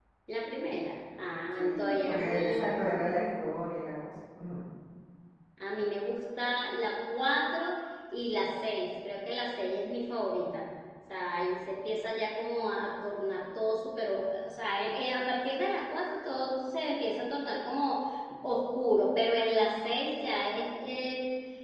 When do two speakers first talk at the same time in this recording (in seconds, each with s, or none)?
1.6 s